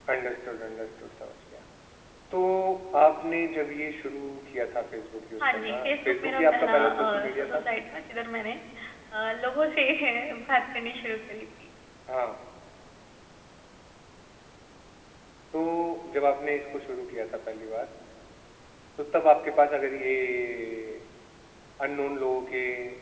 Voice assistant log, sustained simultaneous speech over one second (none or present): present